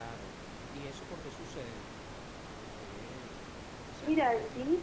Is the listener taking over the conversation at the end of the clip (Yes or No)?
Yes